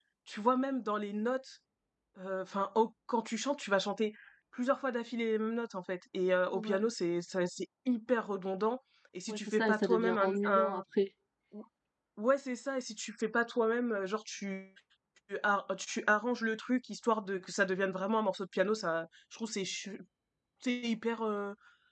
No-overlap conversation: No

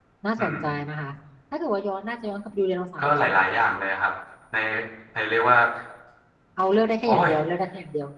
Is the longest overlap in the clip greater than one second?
No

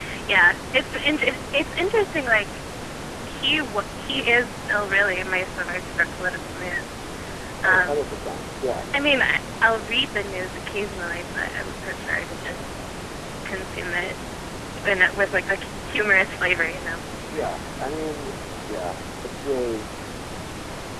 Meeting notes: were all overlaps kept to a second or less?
Yes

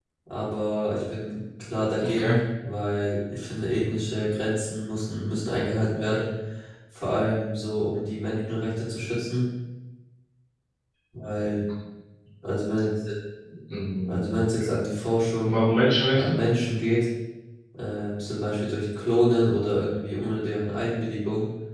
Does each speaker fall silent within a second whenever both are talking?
Yes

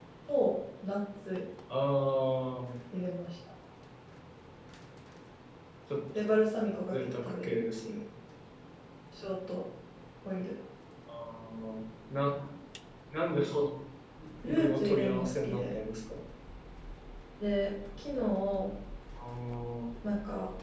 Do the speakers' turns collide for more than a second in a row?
Yes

